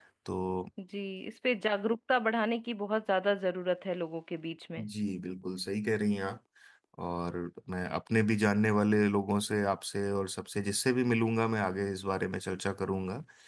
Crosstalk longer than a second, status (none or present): none